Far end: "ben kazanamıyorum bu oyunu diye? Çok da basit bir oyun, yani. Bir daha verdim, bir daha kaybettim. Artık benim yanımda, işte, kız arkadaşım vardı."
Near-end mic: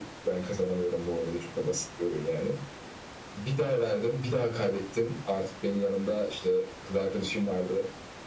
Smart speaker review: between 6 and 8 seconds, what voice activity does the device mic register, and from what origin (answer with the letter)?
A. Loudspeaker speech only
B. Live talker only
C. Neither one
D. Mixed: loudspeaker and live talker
A